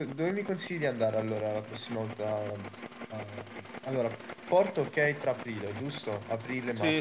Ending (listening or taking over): taking over